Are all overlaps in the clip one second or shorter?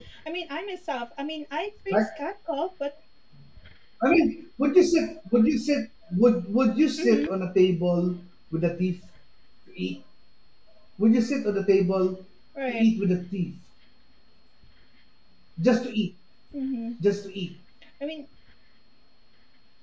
Yes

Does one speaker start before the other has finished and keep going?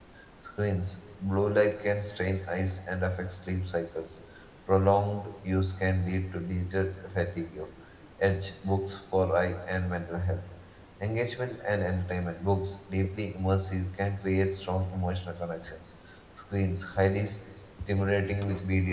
No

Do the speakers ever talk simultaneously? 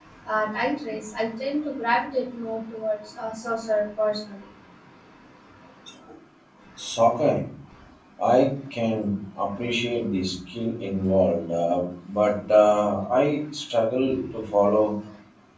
No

